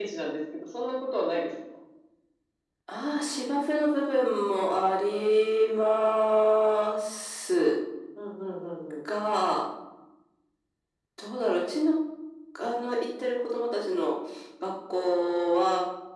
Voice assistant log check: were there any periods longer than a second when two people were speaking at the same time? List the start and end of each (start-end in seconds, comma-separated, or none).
none